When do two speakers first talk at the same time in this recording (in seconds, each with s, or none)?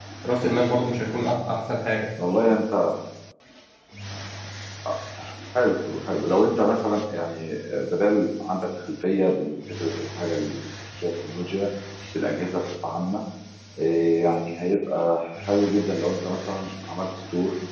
none